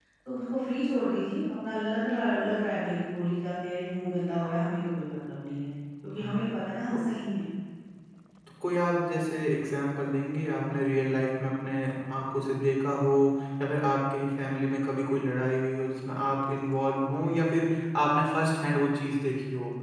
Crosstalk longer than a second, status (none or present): none